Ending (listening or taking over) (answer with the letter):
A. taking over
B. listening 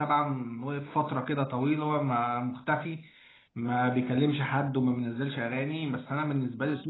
A